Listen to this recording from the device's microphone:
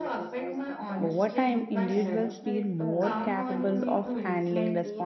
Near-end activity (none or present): present